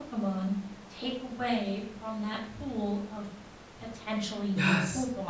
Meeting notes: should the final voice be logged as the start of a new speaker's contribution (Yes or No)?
Yes